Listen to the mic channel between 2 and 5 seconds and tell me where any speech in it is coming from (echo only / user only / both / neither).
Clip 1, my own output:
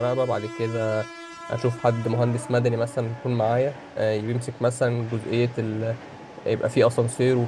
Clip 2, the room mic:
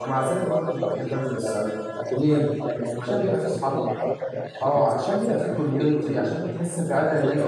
both